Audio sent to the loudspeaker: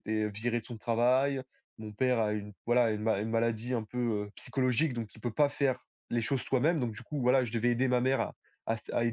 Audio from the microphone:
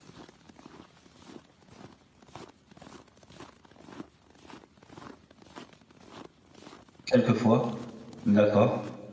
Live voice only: quelquefois. D'accord.

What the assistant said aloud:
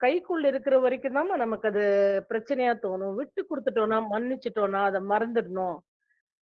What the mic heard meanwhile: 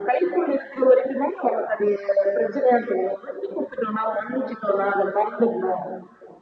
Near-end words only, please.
none

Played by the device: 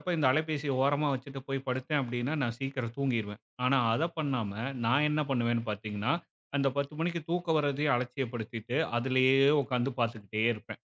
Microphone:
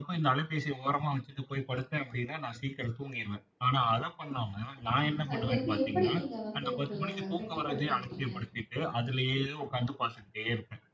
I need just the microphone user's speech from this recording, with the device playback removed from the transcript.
ம். அதுலேருந்து எப்படி நீங்க வந்து உங்கள கட்டுப்படுத்திக்கிட்டீங்க?

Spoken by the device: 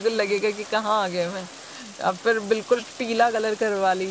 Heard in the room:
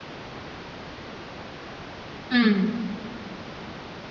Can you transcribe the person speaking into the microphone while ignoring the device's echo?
हुँ,

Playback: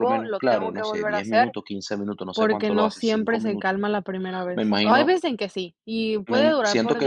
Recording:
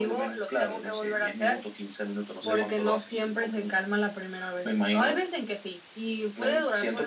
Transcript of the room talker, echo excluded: ¿Me

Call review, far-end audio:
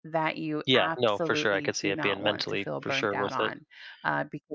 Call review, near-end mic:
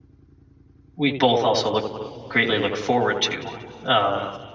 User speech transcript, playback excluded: we both also look greatly look forward to um

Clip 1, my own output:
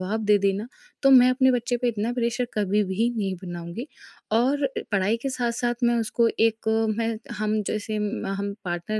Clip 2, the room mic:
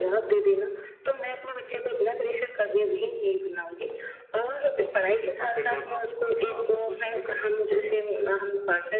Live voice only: और फिर जब हम उन्हें वापस वो चीज़ें करने के बोलते हैं,

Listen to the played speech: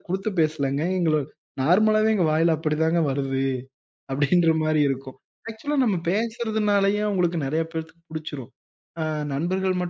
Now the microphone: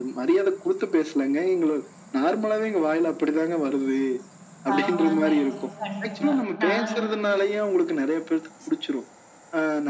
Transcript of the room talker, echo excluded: ஆமாங்க. கண்டிப்பா. நான்

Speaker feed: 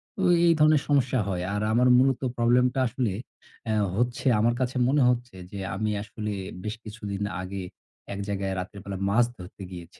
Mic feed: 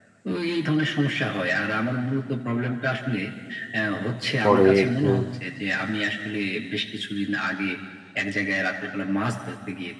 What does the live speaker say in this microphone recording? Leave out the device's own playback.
পরে একটু

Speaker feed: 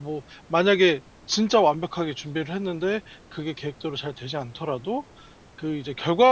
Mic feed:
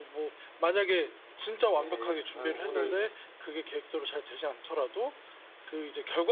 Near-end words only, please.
네. 아유 오늘

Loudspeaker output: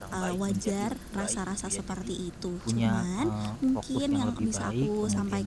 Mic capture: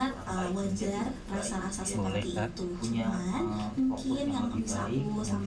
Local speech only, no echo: Boleh Kak.

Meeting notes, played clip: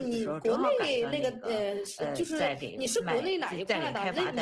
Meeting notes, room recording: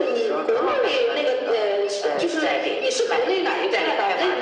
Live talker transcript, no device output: none

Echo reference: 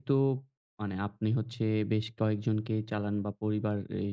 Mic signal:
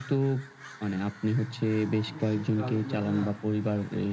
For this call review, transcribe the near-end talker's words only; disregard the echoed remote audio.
এ সে কাজগুলাতে না

